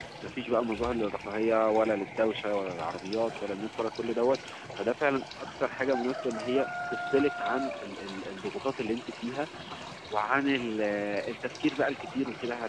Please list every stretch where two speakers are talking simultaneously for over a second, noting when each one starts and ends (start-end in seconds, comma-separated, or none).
none